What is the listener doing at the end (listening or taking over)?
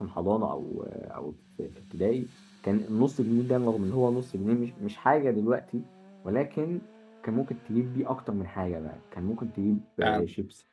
listening